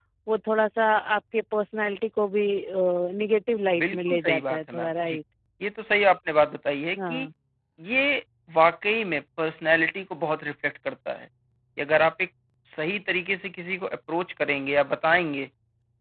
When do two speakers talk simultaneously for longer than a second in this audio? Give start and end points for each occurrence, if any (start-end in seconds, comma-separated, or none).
3.8-5.2